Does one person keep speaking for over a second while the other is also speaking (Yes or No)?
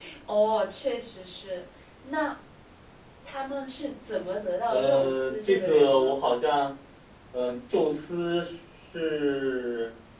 Yes